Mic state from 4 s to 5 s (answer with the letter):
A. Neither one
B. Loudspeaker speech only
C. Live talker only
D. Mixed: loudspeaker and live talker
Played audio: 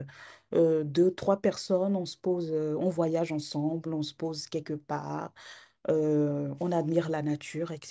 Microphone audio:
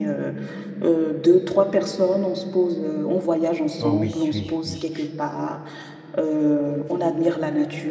D